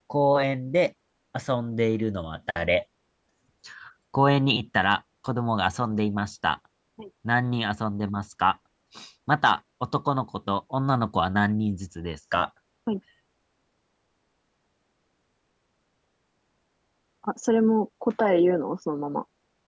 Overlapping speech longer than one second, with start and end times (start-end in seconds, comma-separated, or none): none